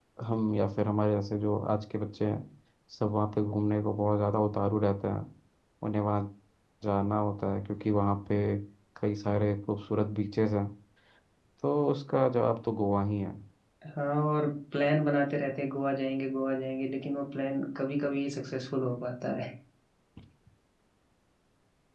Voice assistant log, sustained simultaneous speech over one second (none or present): none